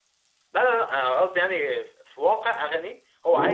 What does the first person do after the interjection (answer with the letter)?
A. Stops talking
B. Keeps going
B